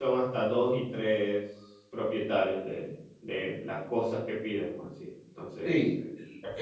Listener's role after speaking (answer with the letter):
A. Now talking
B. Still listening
A